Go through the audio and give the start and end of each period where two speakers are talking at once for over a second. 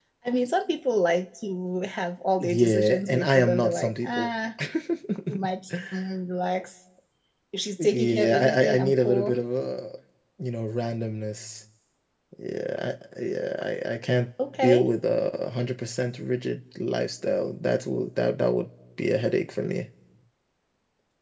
2.4-4.3, 7.8-9.4

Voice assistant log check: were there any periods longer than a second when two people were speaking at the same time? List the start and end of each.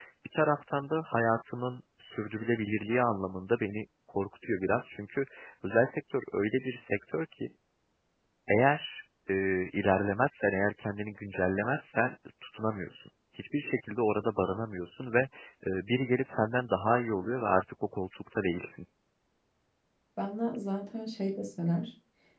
none

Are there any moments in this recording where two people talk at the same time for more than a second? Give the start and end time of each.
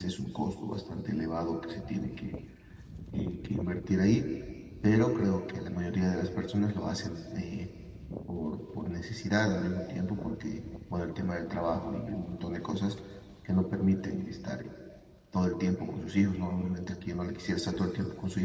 none

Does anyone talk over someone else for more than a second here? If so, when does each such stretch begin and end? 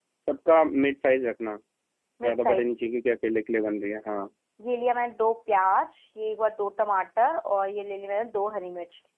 none

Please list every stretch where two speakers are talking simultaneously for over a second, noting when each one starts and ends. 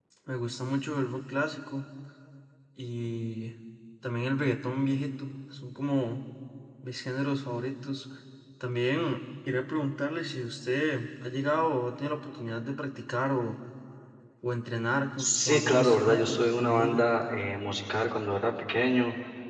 15.2-17.1

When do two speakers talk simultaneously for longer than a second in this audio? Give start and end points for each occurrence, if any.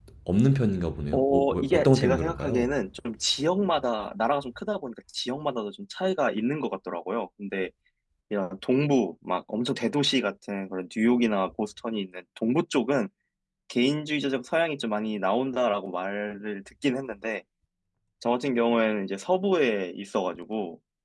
1.1-2.7

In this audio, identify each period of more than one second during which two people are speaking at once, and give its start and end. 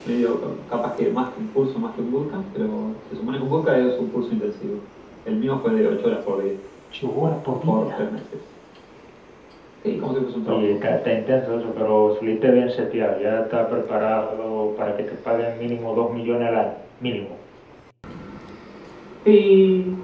none

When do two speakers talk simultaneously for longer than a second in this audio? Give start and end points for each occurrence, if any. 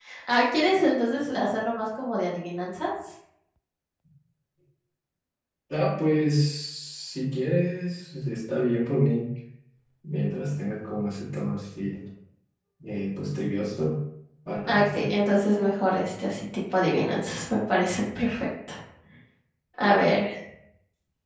none

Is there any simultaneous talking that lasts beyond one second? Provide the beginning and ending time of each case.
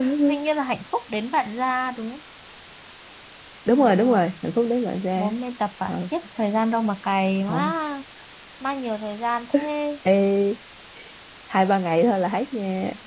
none

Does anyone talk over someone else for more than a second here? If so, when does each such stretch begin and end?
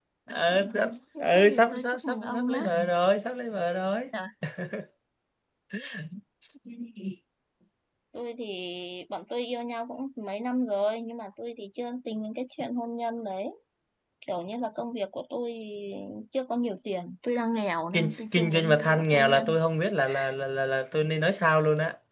1.2-2.6, 17.9-19.6

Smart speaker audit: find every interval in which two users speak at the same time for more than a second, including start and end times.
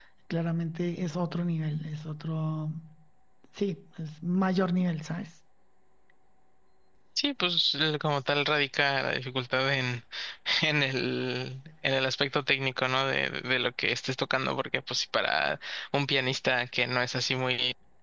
none

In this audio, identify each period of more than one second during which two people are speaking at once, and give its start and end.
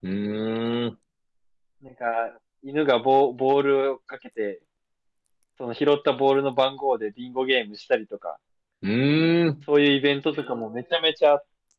none

